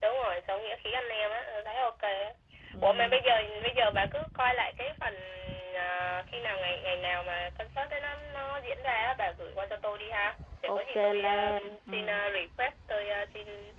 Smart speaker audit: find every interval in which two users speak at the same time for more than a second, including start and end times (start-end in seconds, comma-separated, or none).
10.7-12.1